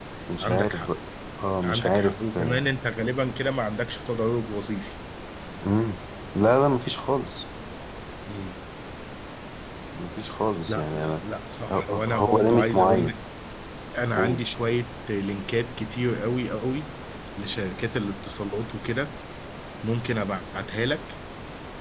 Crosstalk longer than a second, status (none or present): present